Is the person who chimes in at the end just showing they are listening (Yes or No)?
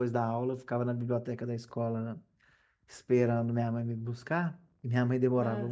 Yes